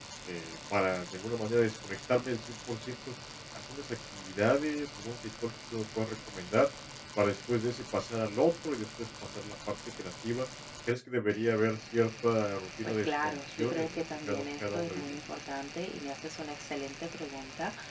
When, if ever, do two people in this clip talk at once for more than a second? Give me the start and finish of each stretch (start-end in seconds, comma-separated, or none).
12.8-15.2